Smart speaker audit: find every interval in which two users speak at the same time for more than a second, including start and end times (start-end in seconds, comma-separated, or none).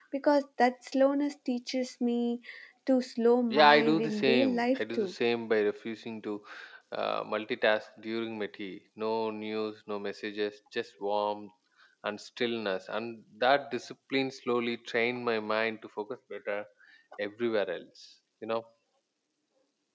3.5-5.1